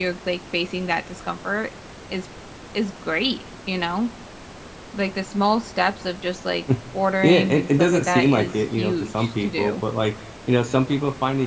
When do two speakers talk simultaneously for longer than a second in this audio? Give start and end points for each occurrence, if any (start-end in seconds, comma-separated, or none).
7.2-9.8